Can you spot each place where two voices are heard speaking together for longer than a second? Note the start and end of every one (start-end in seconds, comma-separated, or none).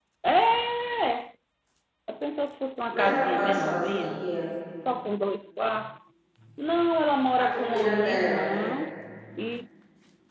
2.9-4.2, 7.4-8.7